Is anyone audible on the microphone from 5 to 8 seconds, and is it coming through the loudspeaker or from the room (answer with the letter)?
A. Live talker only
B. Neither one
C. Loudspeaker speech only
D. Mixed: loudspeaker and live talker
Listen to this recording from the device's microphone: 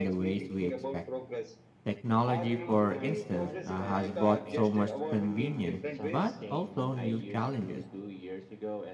D